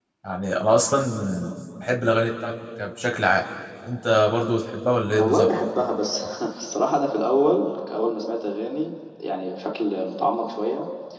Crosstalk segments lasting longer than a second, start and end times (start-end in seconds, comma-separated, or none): none